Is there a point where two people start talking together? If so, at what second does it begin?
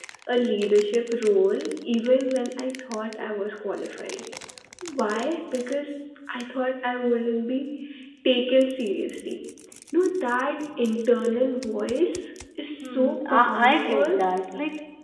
12.8 s

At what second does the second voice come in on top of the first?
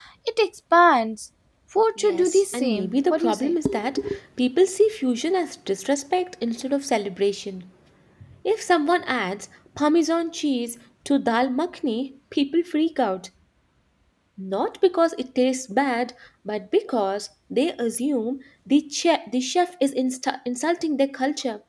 2.0 s

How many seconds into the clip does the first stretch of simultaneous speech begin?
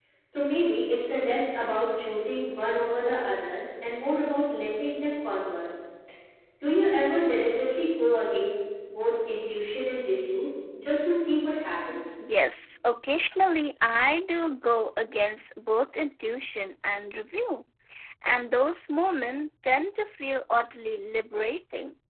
none

